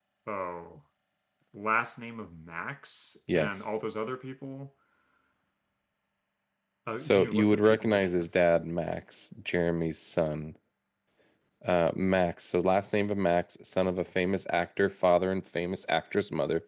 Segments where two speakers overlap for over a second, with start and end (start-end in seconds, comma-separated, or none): 7.0-8.3